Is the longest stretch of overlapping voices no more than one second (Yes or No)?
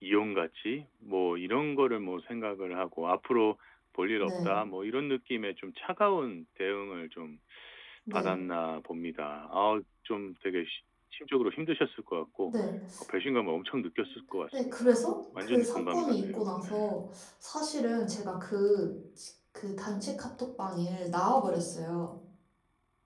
No